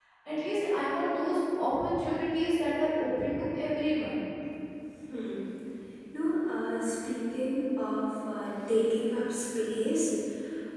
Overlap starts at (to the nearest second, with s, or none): none